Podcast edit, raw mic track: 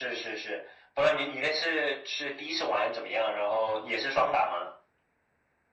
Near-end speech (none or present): none